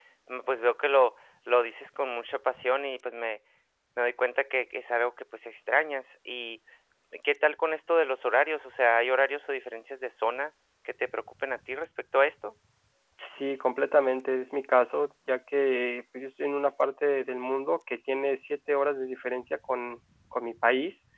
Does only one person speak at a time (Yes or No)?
Yes